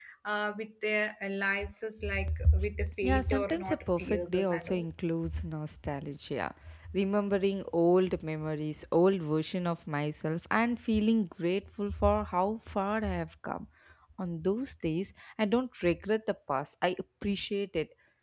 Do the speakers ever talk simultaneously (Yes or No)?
Yes